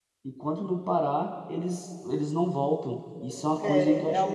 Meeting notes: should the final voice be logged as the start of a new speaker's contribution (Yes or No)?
Yes